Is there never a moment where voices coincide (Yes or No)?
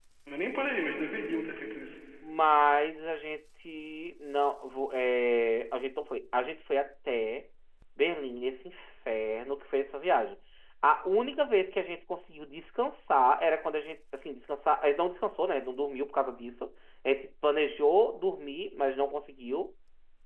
Yes